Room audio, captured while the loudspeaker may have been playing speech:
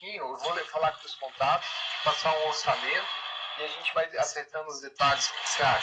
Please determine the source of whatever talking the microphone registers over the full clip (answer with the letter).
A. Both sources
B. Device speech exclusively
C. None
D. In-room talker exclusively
B